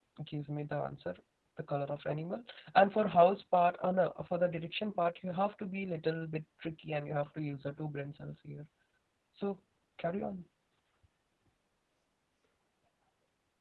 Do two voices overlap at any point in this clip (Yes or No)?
No